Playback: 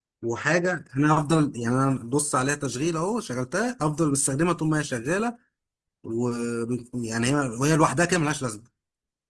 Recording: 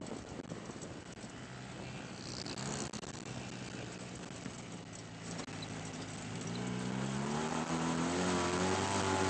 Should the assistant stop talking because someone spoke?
No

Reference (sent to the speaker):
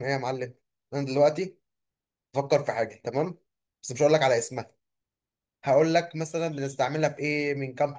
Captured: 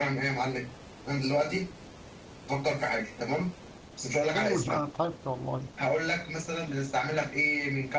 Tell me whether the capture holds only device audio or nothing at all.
No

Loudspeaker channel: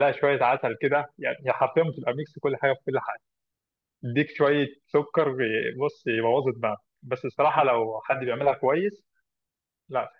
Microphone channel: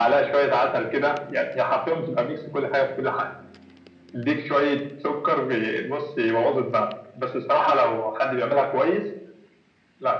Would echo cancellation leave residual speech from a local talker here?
No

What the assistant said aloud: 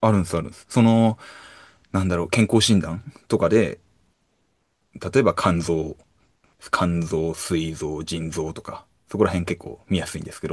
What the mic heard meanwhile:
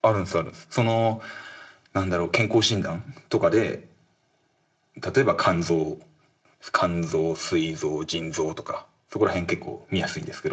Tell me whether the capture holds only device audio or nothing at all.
Yes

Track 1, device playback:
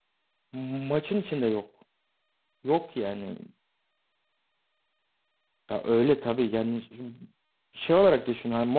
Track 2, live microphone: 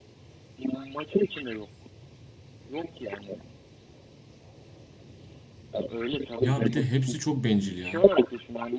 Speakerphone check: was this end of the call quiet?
No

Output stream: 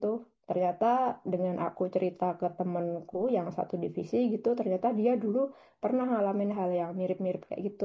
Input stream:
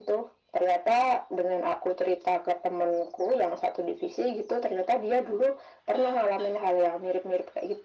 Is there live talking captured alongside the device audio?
No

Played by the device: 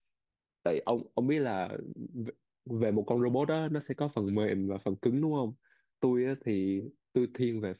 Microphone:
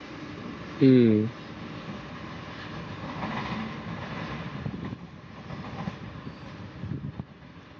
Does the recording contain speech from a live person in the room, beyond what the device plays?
Yes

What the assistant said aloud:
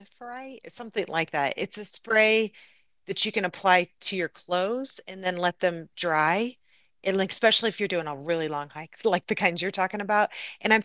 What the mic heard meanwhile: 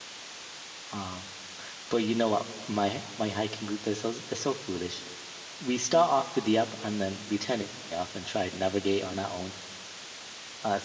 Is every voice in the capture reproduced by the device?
No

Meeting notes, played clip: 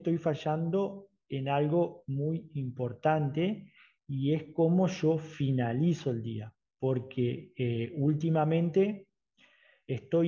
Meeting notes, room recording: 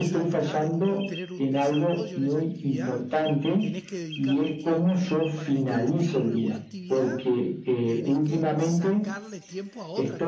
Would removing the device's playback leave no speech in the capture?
No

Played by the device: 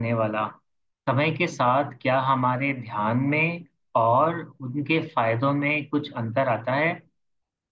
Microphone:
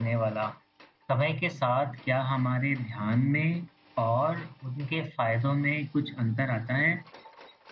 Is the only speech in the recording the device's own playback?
Yes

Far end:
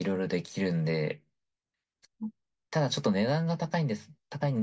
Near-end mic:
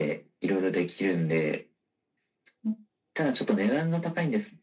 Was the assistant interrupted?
No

